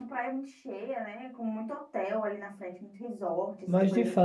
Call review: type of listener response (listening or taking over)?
taking over